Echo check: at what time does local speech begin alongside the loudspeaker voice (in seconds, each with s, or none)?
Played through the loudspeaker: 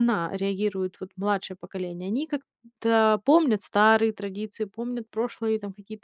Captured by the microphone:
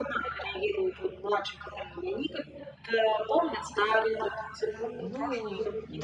5.0 s